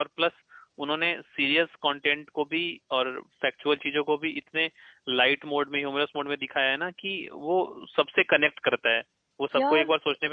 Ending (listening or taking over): listening